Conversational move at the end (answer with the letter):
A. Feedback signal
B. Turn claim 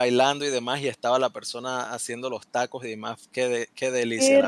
B